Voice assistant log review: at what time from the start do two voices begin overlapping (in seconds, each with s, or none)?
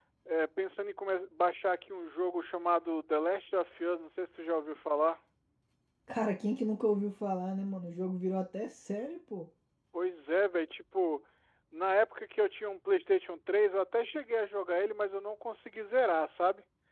none